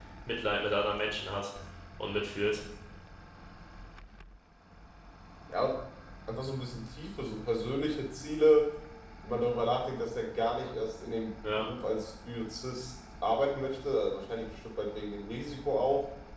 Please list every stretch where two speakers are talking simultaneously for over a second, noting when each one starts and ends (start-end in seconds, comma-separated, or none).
none